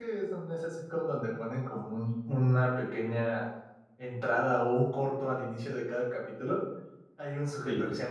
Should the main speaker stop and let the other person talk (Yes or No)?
No